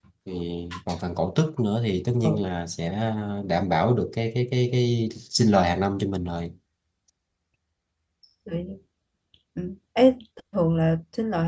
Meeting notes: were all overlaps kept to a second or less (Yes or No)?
Yes